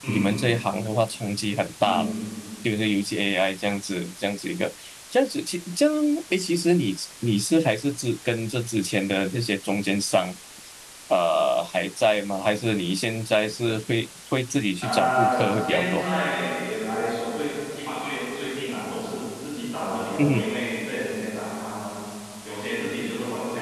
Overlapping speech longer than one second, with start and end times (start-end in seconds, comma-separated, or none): 14.8-16.1